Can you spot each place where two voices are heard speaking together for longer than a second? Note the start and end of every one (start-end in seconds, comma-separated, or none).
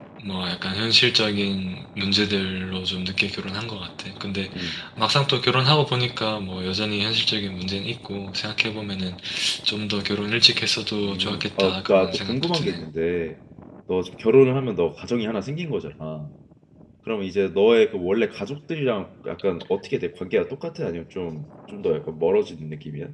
11.0-12.8